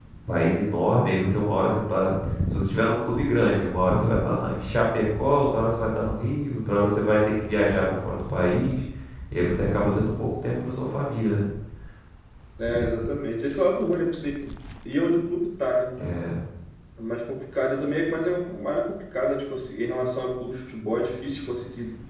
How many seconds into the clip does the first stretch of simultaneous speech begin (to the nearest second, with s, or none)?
none